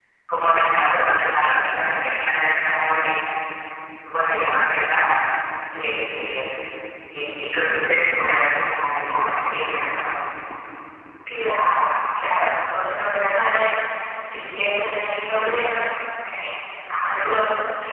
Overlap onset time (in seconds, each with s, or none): none